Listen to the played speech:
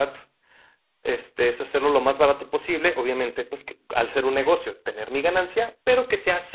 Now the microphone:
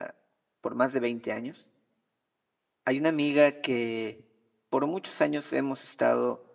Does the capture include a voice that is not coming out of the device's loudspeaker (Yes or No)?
Yes